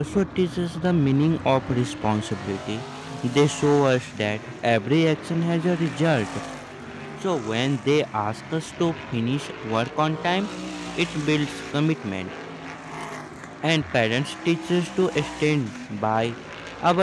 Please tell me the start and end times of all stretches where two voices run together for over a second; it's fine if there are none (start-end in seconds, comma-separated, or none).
none